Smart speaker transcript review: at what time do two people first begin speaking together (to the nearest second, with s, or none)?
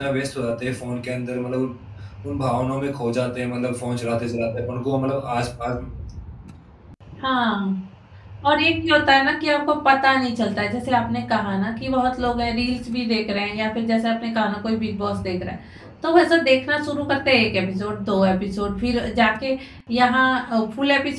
none